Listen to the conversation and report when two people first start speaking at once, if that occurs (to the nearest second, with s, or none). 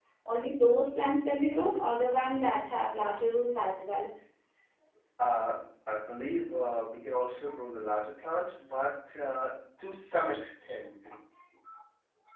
none